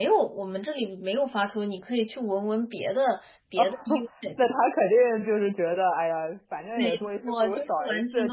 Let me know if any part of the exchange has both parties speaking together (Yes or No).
Yes